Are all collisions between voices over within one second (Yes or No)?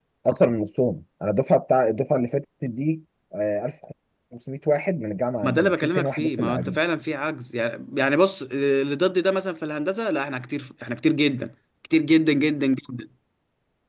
No